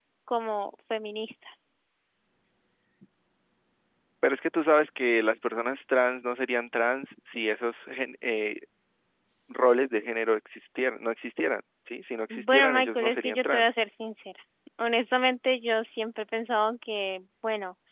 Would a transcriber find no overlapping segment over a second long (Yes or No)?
No